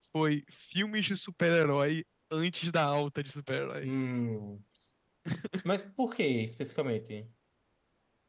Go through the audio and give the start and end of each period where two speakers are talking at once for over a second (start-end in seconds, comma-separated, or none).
none